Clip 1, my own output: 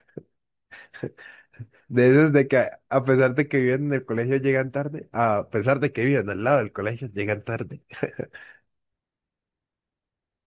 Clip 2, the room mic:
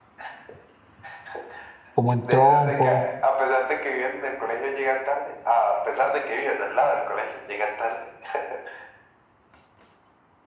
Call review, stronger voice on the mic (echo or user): user